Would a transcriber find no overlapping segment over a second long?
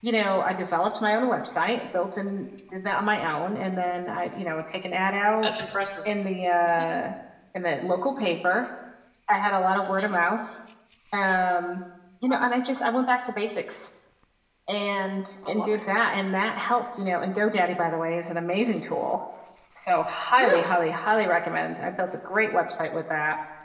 Yes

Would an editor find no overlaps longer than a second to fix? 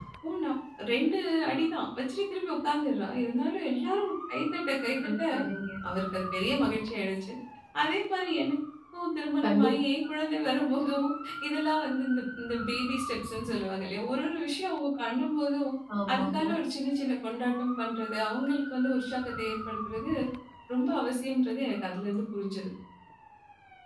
Yes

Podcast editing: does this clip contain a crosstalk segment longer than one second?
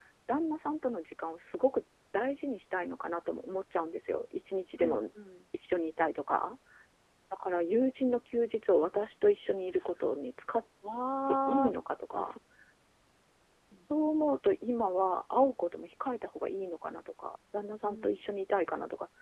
No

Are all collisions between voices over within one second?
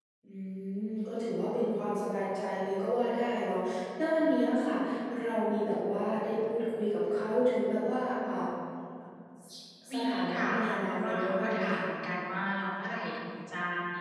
No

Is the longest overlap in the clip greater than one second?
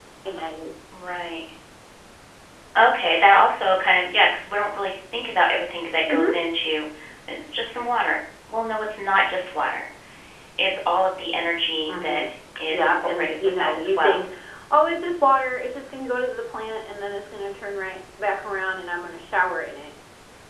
Yes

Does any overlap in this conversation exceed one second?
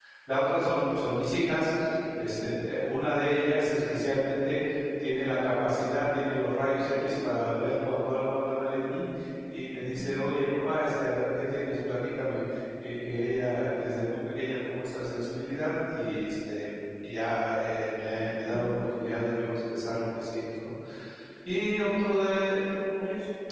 No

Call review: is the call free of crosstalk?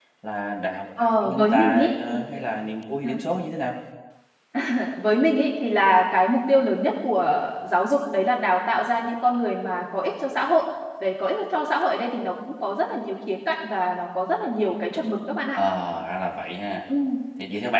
No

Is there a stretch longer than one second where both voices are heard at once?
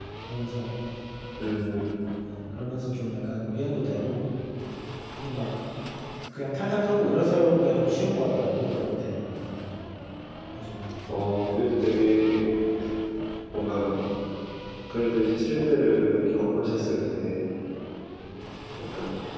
No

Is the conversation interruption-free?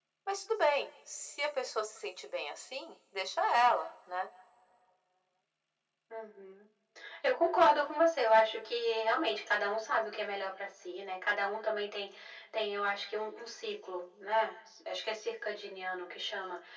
Yes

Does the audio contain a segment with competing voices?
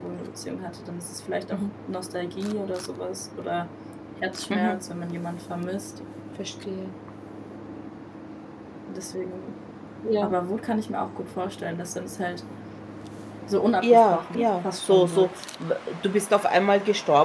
Yes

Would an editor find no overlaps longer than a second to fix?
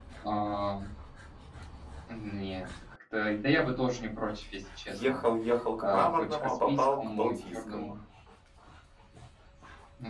No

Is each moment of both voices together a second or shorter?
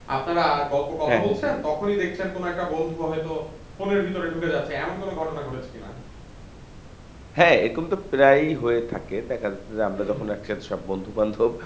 Yes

